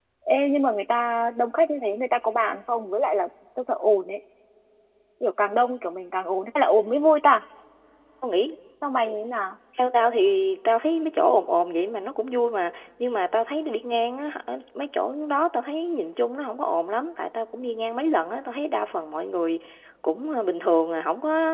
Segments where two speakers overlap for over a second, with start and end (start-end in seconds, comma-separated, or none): none